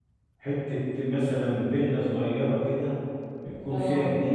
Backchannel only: Yes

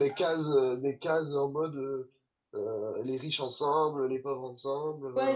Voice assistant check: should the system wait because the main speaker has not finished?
No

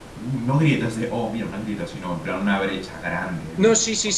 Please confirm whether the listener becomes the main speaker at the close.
Yes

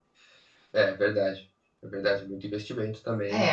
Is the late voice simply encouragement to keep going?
No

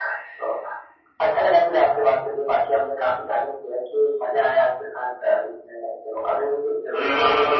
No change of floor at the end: No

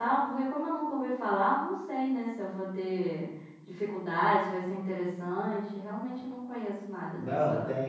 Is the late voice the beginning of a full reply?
Yes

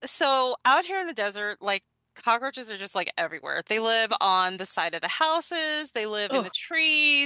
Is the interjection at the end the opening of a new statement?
No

